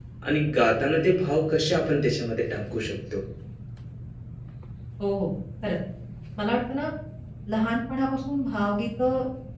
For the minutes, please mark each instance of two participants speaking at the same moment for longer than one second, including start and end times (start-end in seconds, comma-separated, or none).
none